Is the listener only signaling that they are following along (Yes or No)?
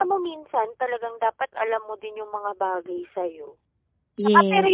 Yes